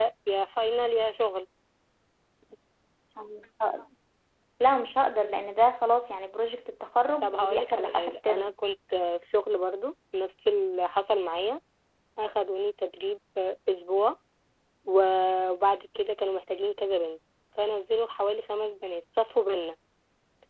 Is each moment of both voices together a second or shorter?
No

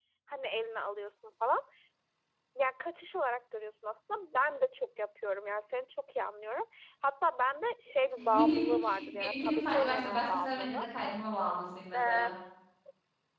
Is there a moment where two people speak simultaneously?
Yes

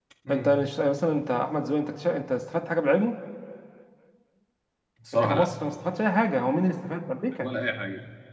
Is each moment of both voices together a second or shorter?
Yes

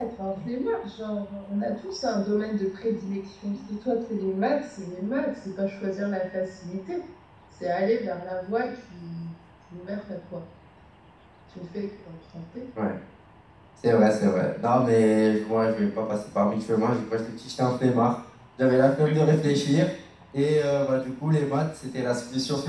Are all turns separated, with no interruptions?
Yes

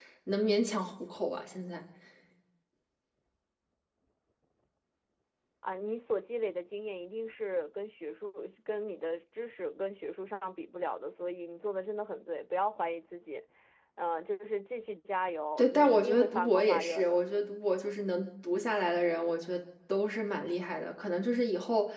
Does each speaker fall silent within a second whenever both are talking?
No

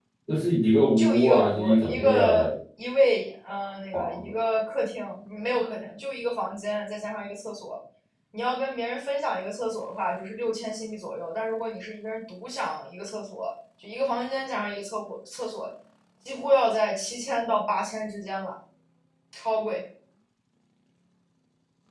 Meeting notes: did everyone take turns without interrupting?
No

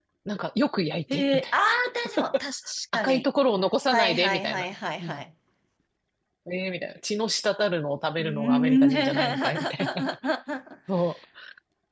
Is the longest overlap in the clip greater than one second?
Yes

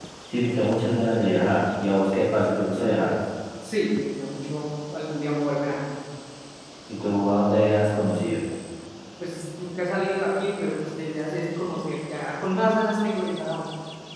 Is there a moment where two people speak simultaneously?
No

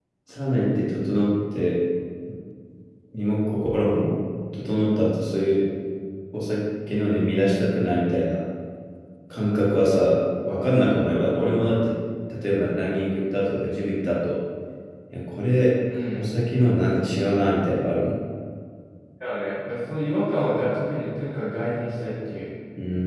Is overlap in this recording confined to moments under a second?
Yes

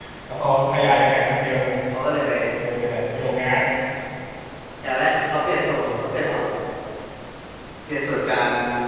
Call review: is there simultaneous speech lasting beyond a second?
No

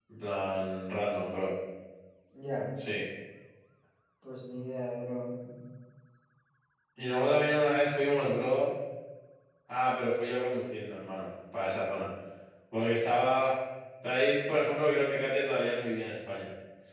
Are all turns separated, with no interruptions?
Yes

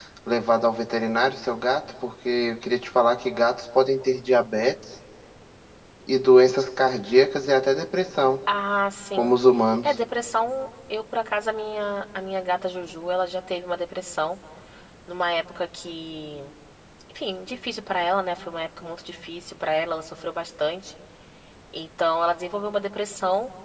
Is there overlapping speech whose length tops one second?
No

